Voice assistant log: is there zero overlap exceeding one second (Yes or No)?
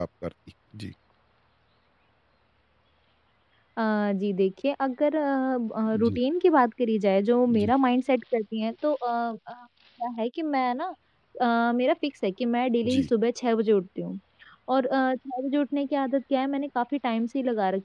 Yes